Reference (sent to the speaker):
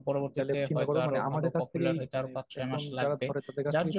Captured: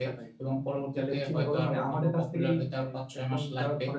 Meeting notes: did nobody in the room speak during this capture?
Yes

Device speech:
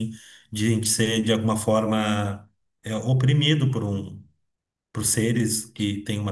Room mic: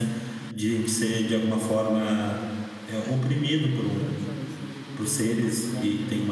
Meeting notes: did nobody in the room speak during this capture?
No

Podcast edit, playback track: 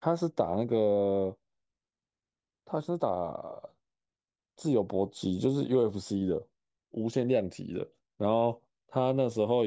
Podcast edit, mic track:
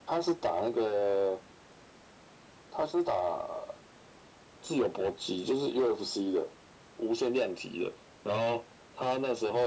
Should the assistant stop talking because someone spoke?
No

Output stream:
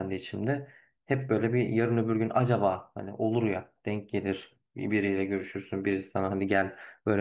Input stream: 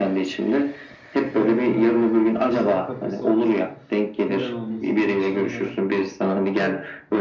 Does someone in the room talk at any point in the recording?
Yes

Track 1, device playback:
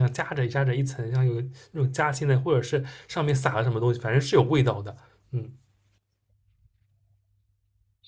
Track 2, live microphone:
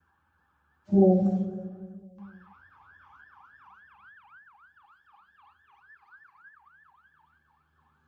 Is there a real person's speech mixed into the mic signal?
Yes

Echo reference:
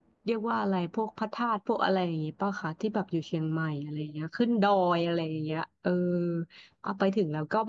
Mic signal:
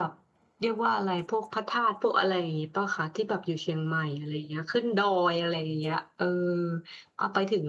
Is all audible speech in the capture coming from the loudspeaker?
Yes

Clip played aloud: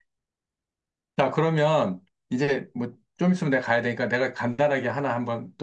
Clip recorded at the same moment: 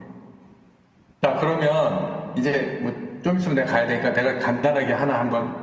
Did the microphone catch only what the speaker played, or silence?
Yes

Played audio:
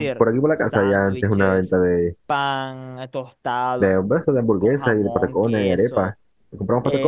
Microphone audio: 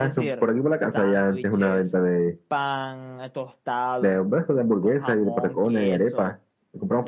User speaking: No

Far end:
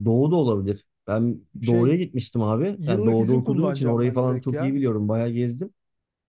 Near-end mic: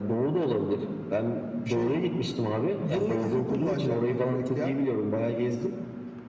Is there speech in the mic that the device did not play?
No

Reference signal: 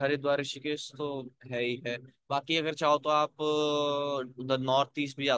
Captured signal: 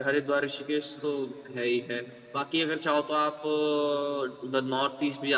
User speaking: No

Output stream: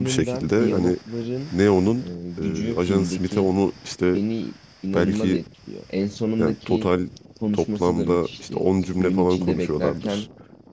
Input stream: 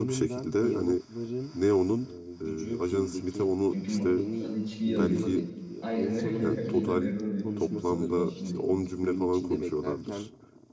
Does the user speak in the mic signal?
Yes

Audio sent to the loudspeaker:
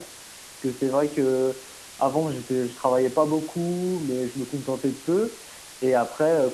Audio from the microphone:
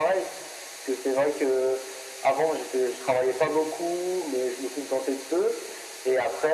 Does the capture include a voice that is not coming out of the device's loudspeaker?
No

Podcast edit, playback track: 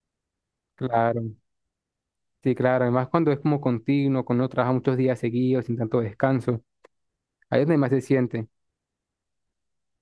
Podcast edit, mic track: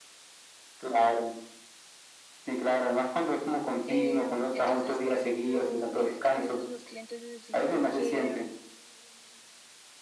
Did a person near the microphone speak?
Yes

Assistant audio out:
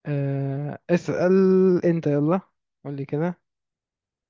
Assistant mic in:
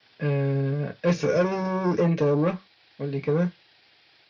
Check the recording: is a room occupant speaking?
No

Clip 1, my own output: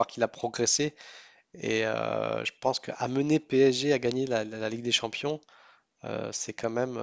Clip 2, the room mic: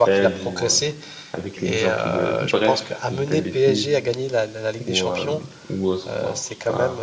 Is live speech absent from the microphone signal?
No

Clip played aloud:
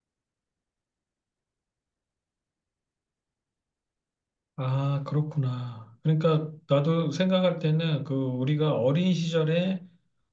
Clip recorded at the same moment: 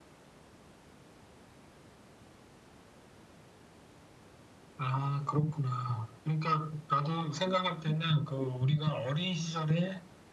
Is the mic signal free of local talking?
Yes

